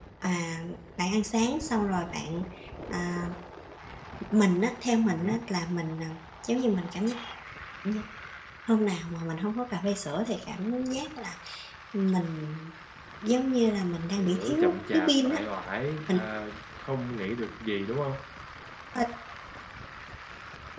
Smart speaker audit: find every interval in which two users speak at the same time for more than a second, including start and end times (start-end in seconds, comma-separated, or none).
14.1-15.4